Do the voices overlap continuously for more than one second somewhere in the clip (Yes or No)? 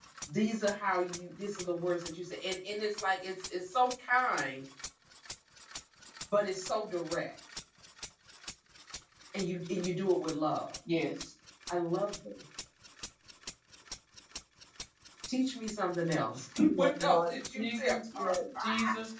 Yes